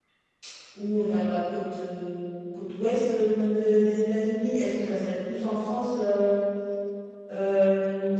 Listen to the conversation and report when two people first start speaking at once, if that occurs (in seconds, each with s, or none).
none